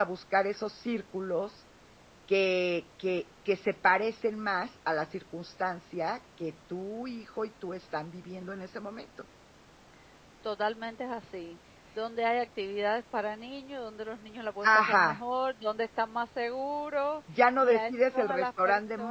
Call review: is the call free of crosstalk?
No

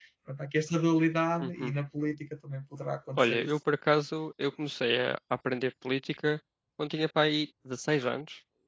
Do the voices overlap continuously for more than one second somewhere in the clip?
No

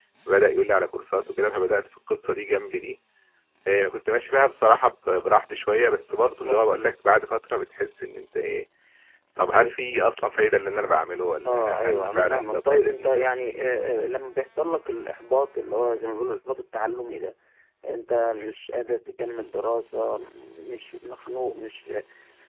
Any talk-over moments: Yes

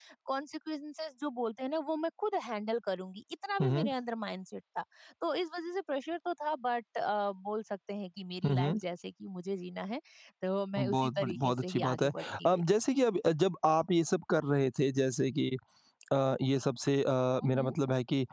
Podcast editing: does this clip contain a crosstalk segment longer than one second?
Yes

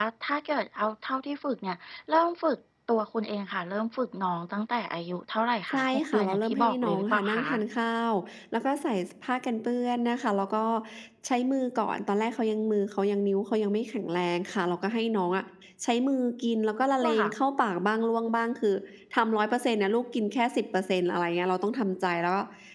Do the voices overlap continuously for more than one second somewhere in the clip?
Yes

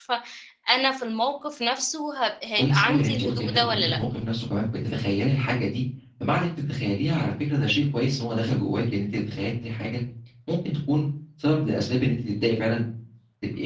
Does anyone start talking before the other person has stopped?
Yes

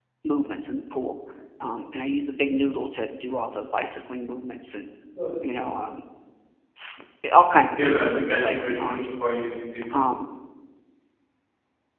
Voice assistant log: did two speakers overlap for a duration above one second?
Yes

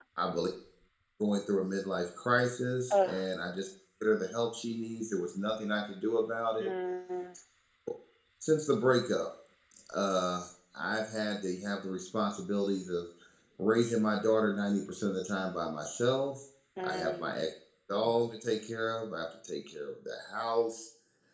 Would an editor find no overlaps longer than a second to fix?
Yes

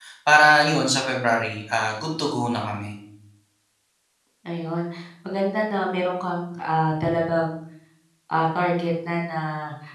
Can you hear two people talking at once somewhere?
No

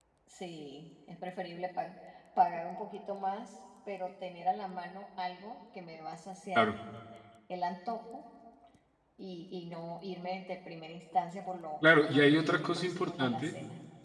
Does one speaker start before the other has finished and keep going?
Yes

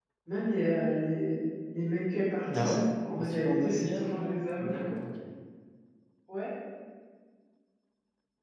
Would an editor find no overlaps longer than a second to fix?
No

